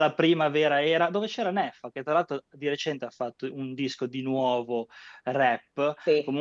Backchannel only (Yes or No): Yes